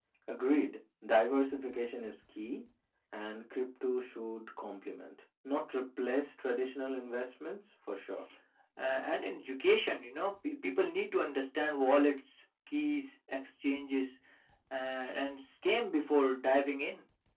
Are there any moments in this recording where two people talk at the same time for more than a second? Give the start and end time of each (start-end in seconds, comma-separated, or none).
none